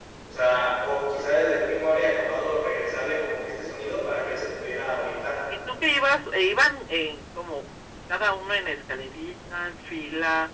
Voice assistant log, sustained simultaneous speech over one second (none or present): none